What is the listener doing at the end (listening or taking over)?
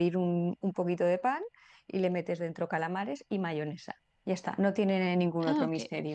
taking over